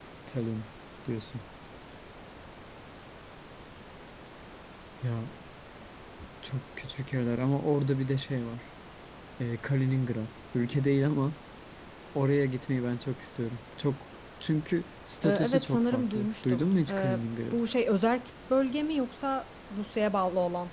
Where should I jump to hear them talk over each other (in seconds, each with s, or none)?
15.2 s